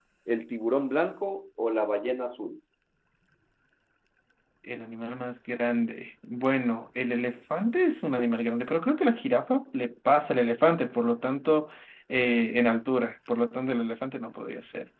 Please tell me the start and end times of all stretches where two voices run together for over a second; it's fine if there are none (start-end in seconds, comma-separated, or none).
none